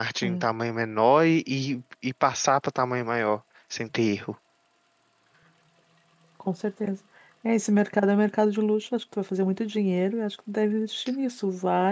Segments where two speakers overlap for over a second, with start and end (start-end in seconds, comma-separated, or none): none